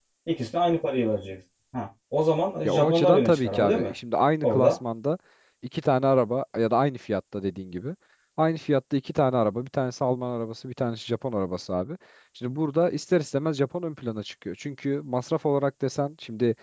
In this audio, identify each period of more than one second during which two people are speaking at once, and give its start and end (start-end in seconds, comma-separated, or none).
2.6-3.9